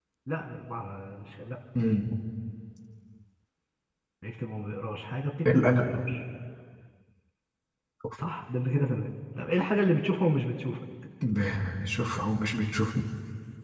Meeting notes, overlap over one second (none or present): none